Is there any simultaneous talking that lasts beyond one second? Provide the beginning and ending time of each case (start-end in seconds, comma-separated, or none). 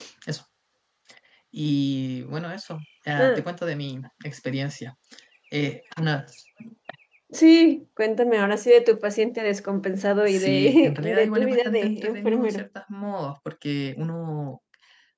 10.2-12.7